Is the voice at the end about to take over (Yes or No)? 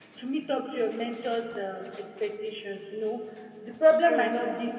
No